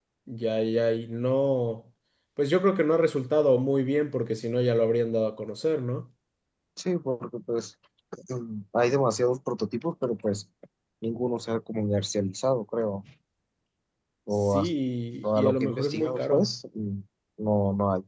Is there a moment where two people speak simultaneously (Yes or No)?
Yes